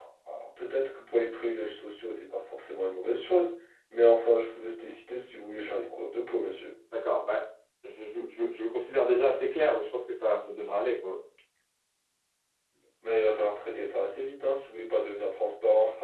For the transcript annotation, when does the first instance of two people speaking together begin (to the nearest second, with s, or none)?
none